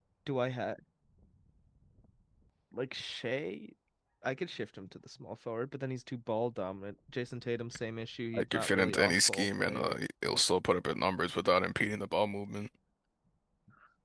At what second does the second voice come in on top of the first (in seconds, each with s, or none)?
8.3 s